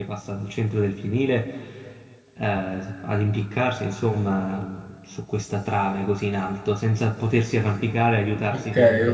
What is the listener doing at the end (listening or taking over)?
taking over